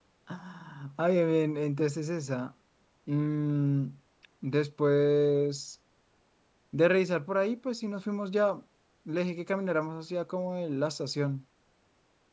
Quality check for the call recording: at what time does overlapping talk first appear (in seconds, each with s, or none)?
none